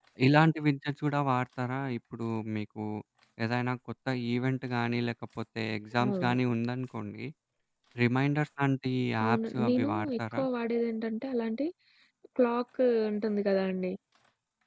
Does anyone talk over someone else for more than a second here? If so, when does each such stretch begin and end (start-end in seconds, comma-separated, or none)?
9.2-10.4